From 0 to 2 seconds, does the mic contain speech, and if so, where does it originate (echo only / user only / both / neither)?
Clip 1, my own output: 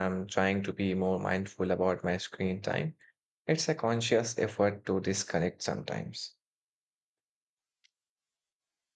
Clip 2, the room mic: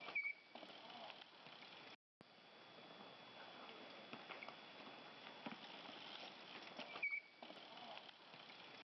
neither